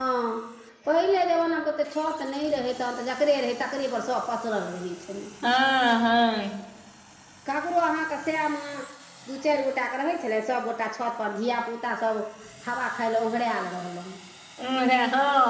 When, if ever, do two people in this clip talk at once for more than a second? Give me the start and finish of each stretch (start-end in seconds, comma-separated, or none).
none